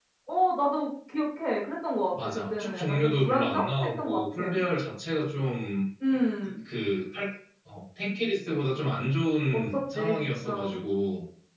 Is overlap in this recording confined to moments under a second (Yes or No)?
No